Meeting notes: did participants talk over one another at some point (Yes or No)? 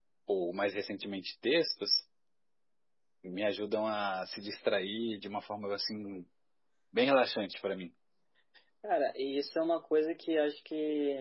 No